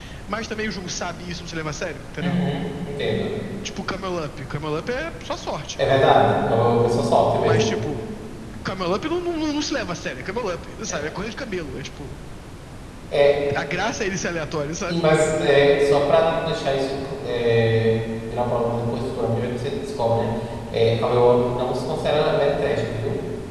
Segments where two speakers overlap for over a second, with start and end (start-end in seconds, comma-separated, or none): none